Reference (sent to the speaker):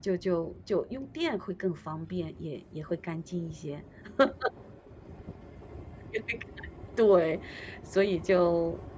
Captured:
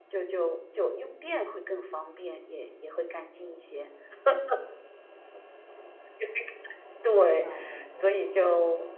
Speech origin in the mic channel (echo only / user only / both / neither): both